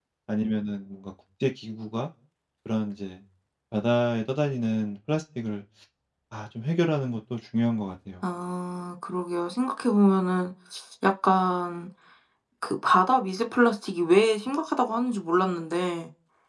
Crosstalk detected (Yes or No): No